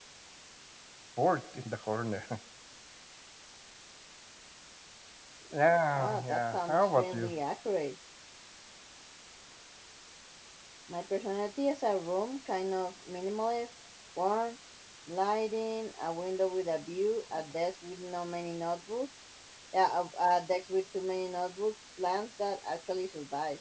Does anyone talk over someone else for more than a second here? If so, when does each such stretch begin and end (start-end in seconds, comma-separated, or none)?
6.0-7.3